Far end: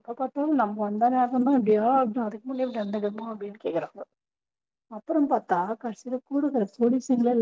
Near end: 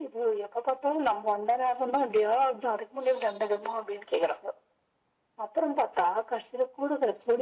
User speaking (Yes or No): No